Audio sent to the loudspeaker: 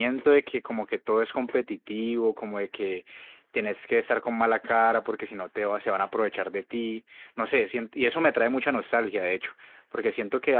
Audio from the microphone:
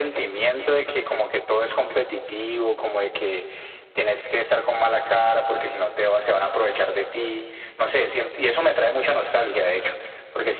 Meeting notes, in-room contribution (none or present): none